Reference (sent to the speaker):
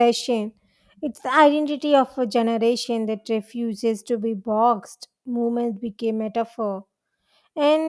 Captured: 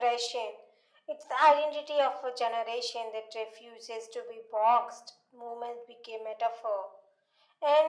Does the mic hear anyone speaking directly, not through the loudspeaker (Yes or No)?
No